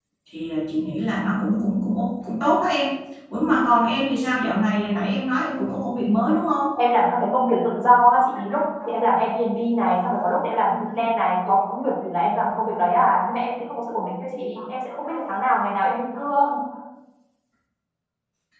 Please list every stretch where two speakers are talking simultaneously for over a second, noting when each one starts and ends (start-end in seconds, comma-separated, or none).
none